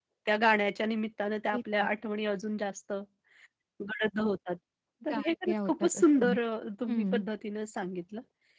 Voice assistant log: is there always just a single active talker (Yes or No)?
No